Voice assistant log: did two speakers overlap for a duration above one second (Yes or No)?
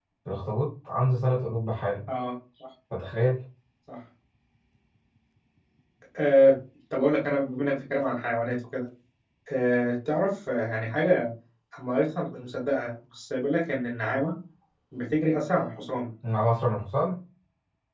No